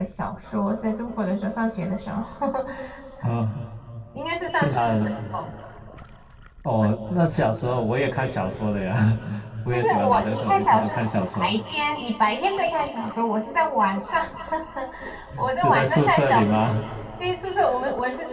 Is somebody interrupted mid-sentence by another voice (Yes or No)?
Yes